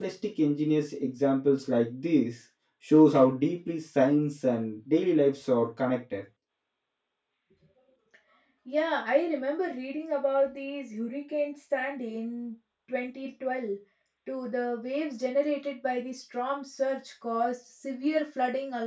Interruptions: none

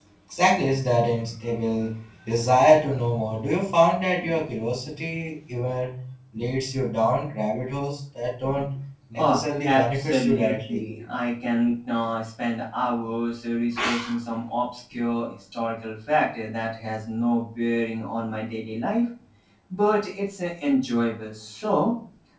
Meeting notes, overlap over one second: present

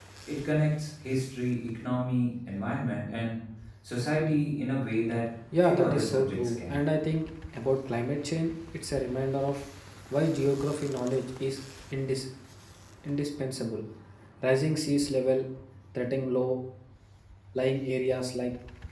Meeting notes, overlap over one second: present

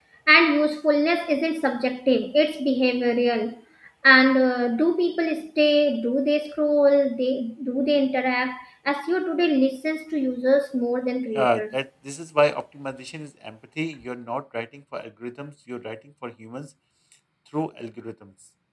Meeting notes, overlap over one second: none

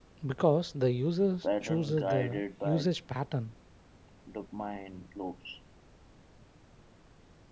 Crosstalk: present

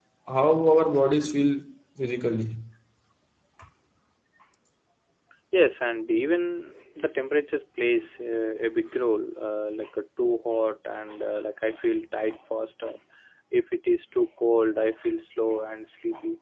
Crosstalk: none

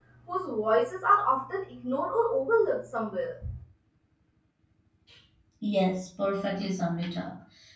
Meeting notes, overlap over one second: none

